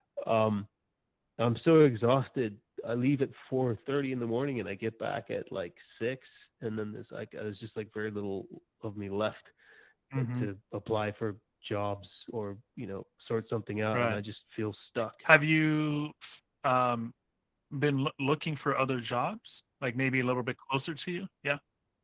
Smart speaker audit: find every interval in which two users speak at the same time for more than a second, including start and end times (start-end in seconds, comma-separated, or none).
none